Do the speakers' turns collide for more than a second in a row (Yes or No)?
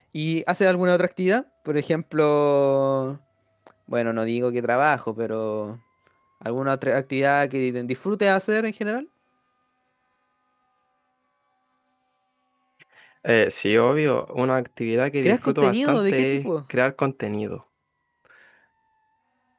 Yes